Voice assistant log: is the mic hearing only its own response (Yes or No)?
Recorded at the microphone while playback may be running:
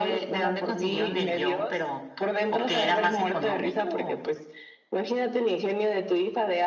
Yes